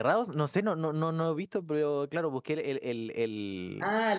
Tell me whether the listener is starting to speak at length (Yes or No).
Yes